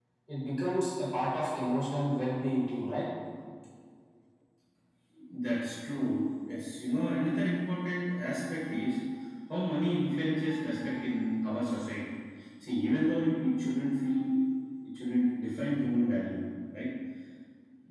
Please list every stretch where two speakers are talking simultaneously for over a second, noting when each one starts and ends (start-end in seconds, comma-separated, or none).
none